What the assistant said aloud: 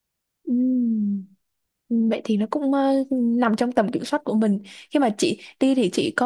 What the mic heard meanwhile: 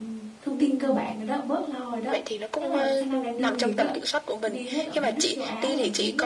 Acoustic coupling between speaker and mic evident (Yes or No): Yes